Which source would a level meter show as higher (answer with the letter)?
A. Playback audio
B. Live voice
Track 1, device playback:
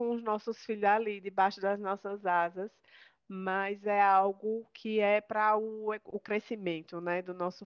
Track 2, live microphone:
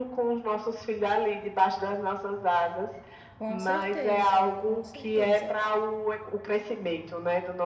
A